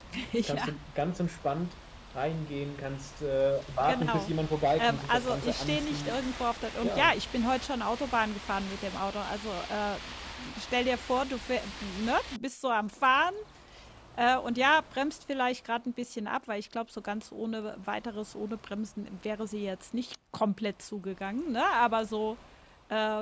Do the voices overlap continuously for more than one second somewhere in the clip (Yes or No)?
Yes